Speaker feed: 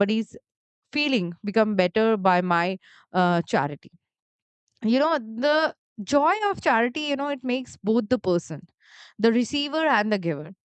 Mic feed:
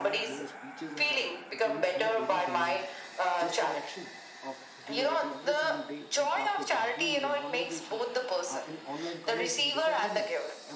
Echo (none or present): present